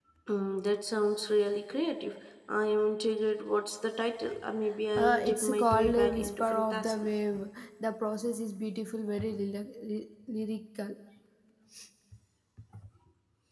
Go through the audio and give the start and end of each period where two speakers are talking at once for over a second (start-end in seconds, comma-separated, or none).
5.0-6.9